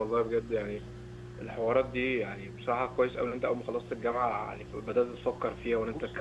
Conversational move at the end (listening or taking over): taking over